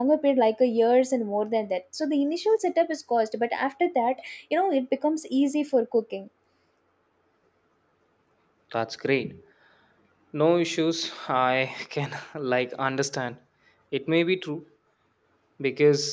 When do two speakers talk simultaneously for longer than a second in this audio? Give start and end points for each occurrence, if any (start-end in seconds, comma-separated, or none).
none